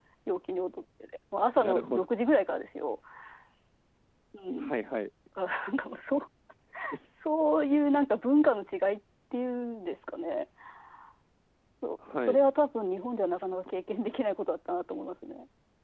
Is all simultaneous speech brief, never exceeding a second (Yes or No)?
Yes